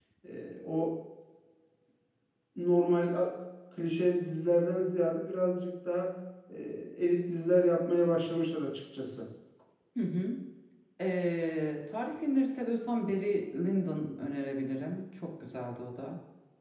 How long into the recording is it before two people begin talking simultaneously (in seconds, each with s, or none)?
none